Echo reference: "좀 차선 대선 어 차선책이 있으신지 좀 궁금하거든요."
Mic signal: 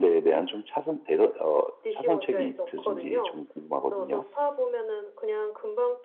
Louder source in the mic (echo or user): echo